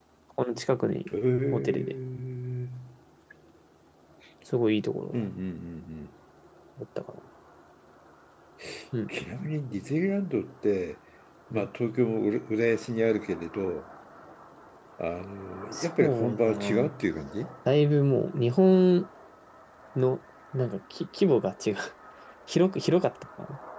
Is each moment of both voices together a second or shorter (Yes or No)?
No